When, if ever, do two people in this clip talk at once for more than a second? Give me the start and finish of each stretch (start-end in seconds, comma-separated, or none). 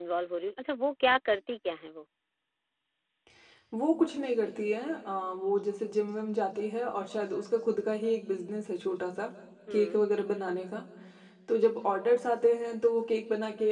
none